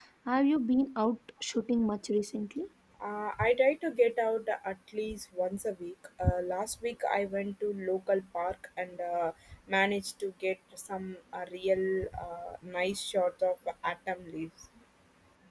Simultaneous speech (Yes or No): No